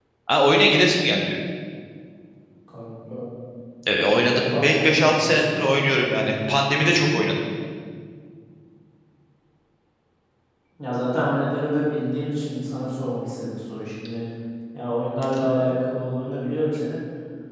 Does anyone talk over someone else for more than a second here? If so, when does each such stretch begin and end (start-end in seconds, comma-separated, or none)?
4.2-5.6